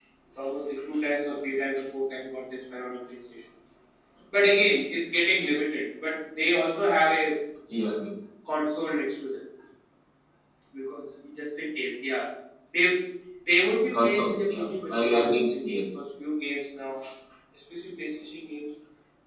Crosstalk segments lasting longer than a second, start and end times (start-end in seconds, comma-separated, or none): 13.9-15.7